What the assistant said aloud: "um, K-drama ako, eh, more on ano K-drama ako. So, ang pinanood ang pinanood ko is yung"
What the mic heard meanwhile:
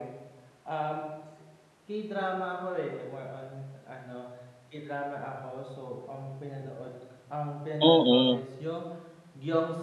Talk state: both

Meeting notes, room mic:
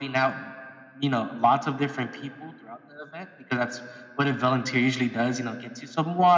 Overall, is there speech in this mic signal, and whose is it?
echo only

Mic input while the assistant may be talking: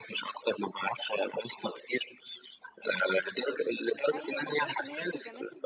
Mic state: both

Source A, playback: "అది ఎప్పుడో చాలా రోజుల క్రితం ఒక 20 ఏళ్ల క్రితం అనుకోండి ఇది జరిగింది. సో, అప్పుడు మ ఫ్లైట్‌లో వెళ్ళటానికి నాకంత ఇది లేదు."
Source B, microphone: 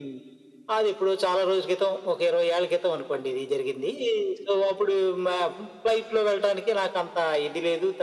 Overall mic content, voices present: echo only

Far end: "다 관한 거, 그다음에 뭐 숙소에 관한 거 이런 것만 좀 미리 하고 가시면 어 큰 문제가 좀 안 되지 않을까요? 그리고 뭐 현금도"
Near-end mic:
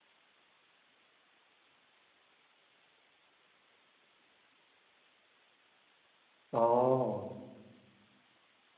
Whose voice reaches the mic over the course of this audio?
user only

